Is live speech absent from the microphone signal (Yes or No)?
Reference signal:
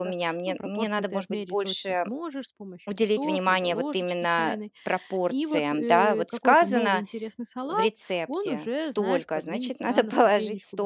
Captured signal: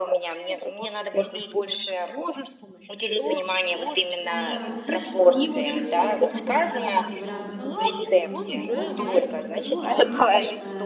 No